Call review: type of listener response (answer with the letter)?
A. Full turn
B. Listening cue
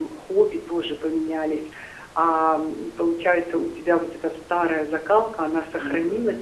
B